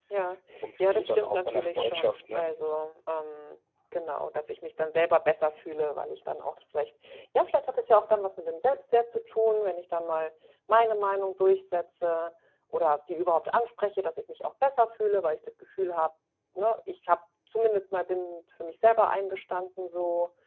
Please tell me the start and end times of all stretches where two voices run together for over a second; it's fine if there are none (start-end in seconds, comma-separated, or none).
0.8-2.5